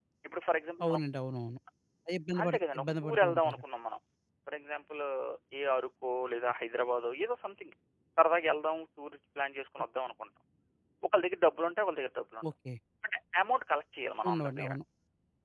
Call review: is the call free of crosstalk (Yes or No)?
No